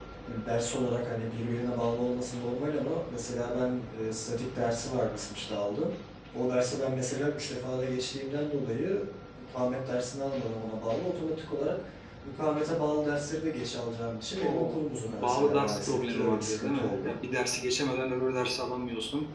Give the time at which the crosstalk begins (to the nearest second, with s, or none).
14 s